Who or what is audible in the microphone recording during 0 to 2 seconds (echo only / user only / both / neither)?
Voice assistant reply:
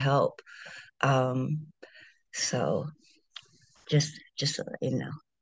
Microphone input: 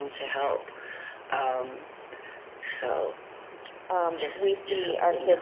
echo only